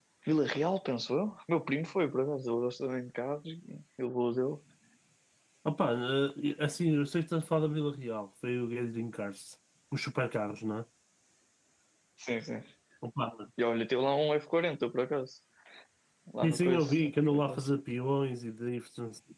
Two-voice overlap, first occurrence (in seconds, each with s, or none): 16.4 s